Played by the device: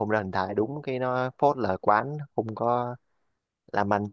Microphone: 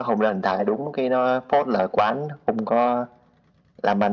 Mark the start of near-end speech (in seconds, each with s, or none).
none